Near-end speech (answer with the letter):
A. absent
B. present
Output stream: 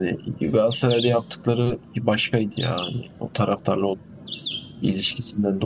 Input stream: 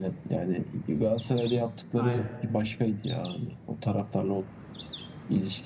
B